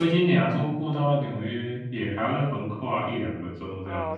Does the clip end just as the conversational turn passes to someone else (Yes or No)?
Yes